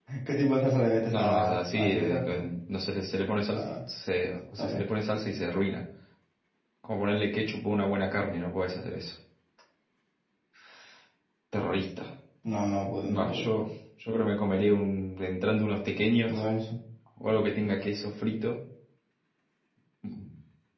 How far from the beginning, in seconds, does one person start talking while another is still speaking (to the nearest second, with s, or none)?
1 s